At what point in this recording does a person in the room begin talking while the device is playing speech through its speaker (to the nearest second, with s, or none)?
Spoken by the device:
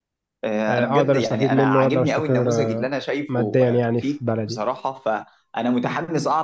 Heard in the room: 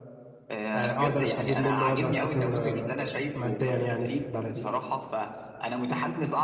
none